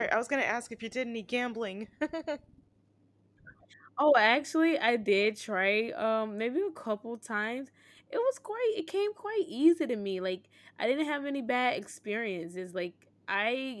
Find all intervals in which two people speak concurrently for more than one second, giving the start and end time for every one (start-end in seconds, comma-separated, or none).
none